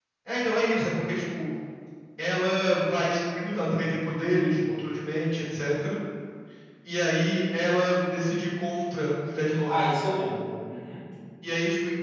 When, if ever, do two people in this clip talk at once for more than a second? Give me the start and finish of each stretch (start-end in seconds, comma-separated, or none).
none